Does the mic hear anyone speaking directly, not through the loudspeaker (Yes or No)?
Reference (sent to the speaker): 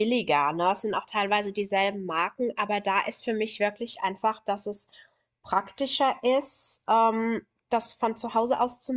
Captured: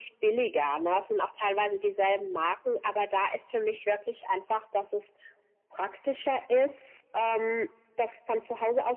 No